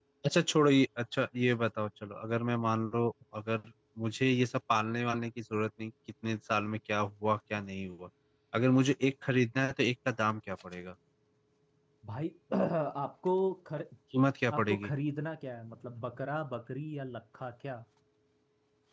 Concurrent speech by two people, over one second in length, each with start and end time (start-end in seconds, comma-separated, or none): none